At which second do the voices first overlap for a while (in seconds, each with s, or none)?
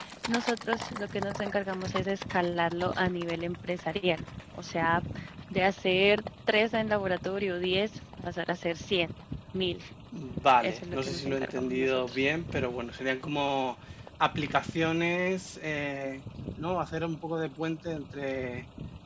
10.6 s